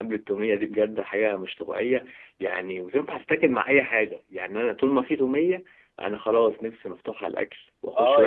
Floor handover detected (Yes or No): Yes